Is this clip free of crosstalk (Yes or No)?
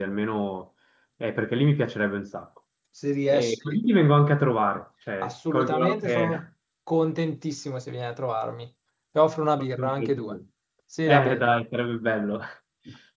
No